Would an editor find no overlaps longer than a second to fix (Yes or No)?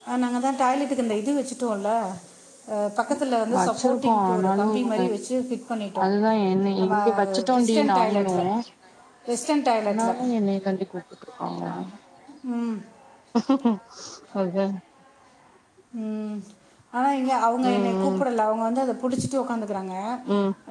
No